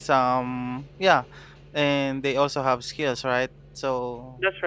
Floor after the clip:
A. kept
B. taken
A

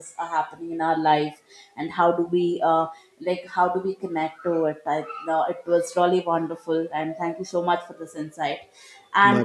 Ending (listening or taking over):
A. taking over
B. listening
B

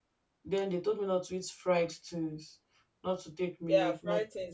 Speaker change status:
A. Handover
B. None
A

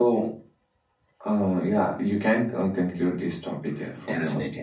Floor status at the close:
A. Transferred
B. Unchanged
A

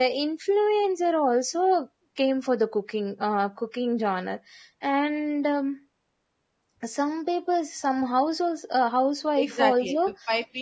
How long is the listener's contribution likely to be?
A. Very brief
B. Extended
B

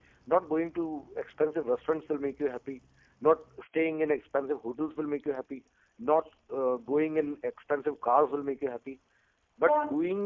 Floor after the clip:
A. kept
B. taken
A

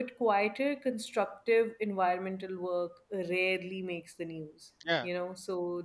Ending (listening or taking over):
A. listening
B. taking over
A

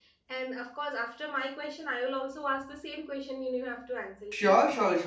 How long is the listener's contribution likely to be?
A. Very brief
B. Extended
B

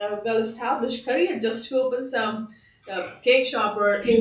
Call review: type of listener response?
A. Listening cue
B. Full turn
A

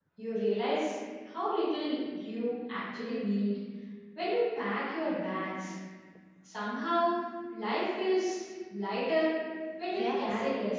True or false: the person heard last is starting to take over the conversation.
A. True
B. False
A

